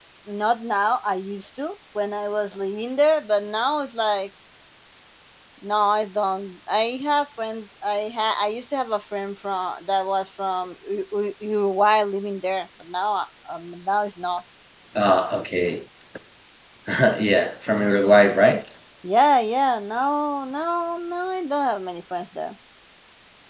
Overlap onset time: none

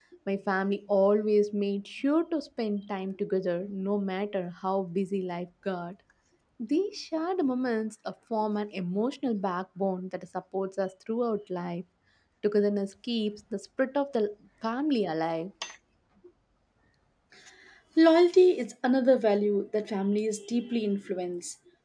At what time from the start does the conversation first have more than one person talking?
none

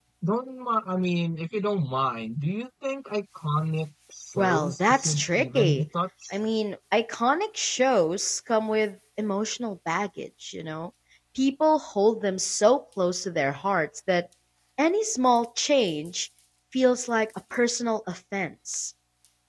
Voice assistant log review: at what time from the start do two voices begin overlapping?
4.4 s

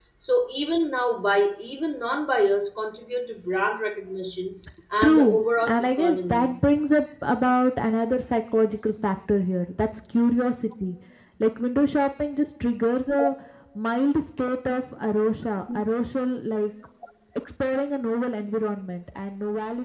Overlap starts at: 5.0 s

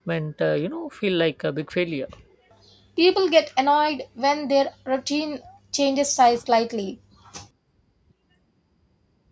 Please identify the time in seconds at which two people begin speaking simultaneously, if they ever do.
none

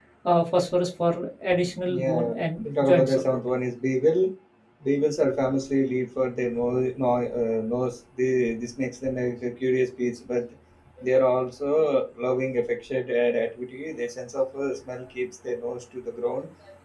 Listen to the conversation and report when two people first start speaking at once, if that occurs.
1.8 s

